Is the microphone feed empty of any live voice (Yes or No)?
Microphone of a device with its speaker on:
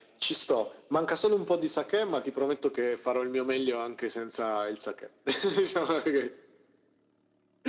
Yes